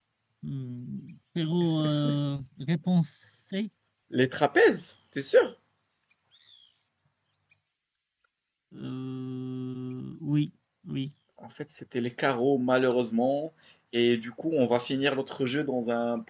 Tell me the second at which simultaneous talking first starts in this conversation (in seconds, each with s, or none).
none